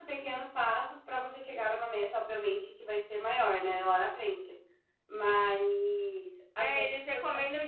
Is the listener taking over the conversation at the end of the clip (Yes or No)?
Yes